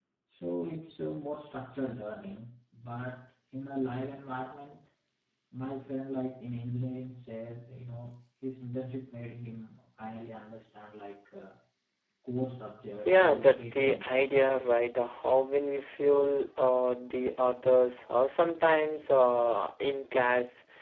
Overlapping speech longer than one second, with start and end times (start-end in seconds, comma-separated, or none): 13.0-14.6